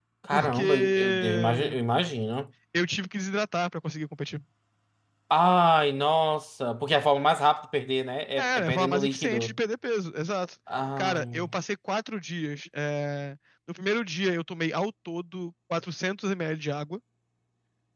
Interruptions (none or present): present